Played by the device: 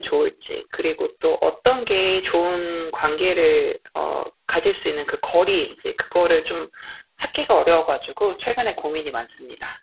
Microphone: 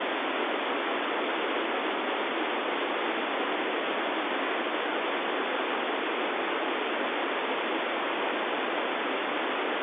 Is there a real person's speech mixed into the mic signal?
No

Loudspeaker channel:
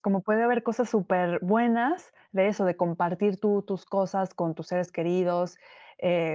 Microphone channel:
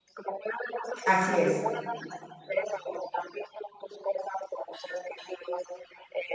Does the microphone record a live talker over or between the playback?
Yes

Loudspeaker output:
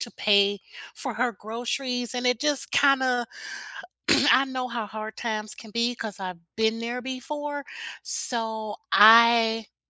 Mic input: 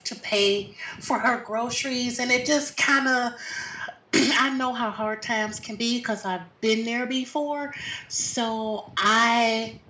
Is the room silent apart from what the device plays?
Yes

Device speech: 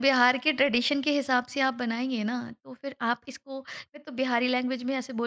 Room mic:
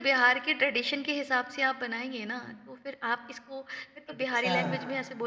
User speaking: Yes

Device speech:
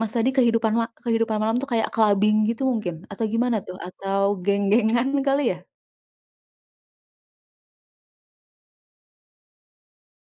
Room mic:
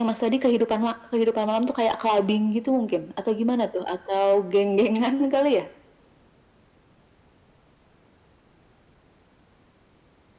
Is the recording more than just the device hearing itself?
No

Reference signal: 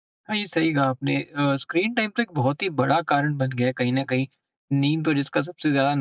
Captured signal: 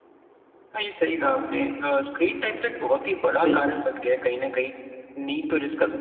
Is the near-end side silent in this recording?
No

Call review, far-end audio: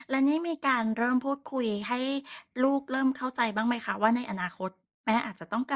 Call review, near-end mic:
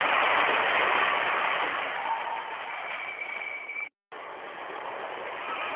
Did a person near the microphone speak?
No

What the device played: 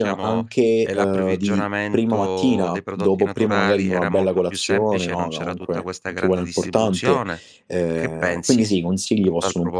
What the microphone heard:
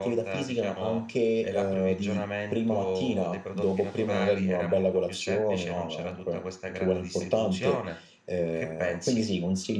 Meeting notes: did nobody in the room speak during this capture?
Yes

